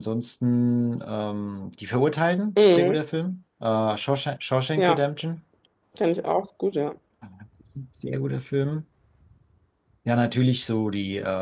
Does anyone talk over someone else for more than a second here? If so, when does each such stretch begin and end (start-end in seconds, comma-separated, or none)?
none